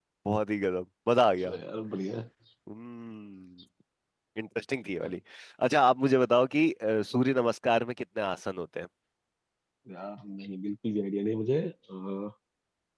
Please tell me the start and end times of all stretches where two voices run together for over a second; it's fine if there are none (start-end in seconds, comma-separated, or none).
none